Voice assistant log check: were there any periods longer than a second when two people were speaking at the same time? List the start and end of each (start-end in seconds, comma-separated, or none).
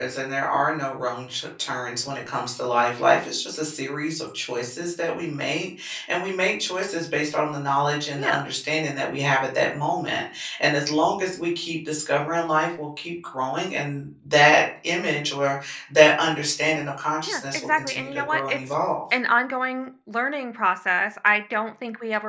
17.3-18.6